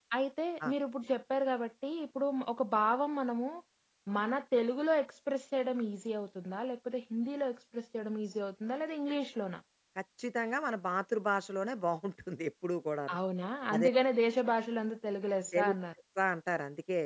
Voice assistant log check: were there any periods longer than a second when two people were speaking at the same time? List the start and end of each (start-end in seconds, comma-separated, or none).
none